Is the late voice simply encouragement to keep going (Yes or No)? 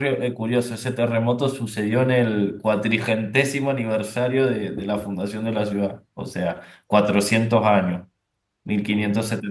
Yes